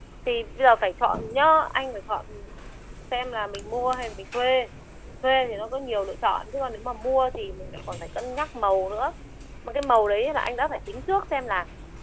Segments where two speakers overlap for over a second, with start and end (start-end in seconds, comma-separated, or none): none